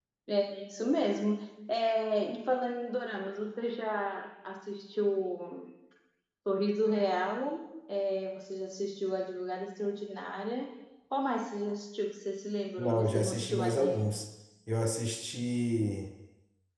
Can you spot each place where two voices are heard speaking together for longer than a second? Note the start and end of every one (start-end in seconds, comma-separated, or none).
12.8-14.1